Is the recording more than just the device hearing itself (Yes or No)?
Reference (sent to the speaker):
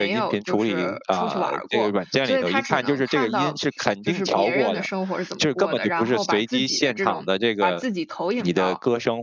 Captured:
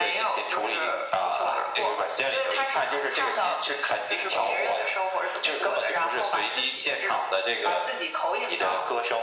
No